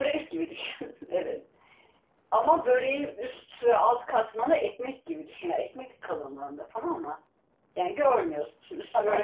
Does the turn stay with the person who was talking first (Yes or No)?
No